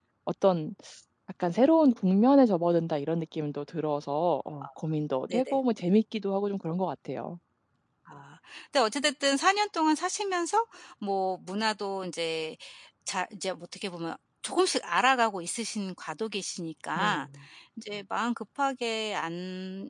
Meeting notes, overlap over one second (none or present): none